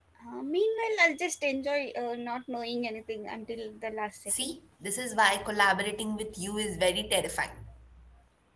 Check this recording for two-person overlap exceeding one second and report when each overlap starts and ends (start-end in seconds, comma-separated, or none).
none